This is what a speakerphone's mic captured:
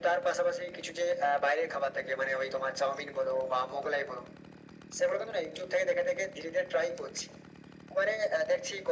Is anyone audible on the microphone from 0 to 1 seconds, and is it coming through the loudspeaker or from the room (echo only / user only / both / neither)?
echo only